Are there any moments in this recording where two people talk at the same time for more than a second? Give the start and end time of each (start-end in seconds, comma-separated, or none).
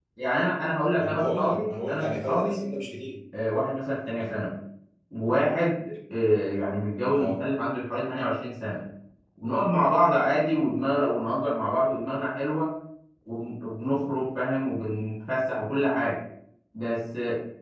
0.9-2.6